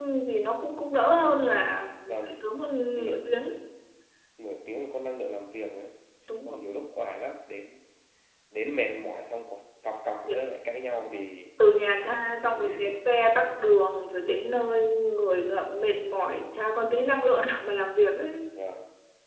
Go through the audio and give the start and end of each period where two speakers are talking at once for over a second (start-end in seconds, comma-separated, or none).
none